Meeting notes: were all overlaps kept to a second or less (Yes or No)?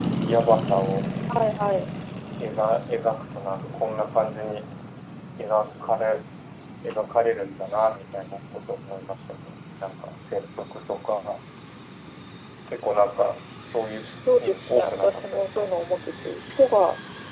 No